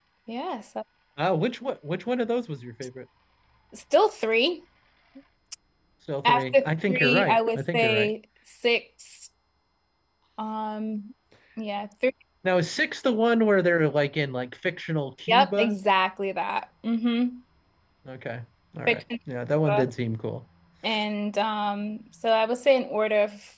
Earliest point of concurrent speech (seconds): 6 s

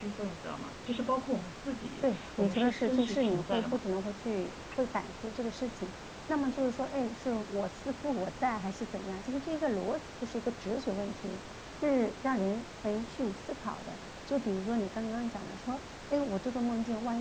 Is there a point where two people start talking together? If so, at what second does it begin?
2 s

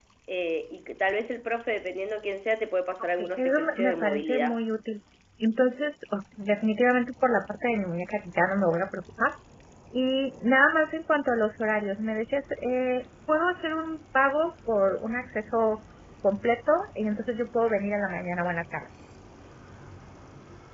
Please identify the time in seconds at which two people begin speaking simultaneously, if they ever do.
3 s

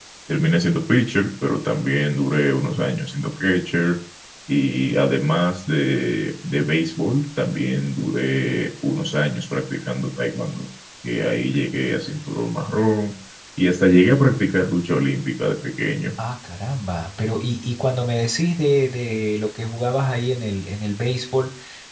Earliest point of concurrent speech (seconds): none

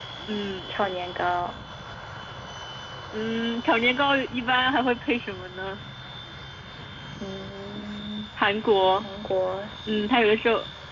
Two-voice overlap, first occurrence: none

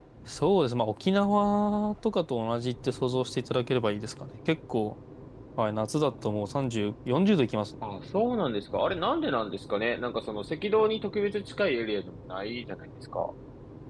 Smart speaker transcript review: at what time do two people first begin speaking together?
none

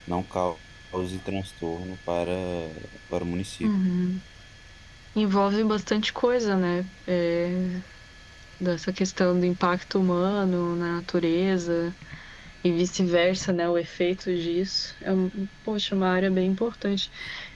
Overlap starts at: none

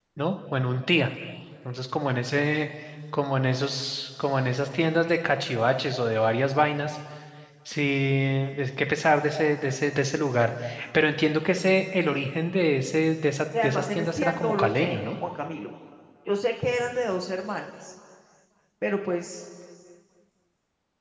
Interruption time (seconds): 14 s

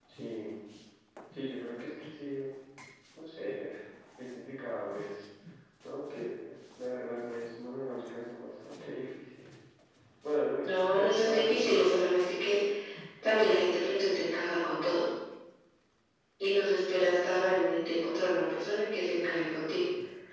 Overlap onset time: 11 s

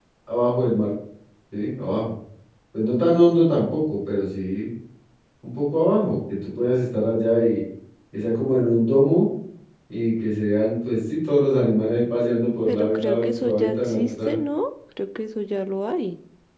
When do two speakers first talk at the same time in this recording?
13 s

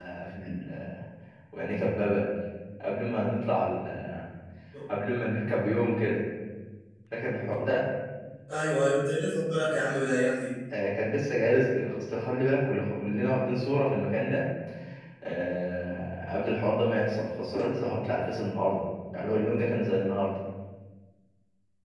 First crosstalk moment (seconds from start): none

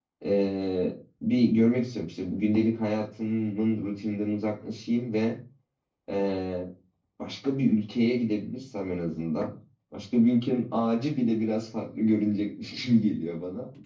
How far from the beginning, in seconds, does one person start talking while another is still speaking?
none

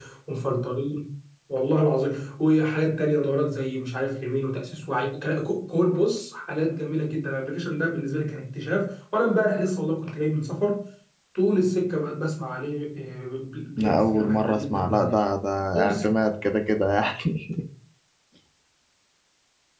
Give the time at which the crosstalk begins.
14 s

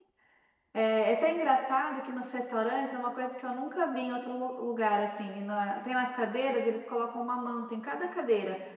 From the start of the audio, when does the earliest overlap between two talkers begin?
none

